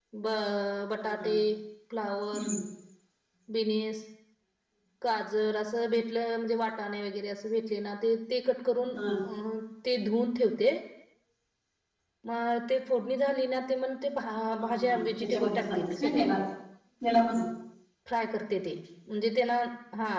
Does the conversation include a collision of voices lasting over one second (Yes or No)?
Yes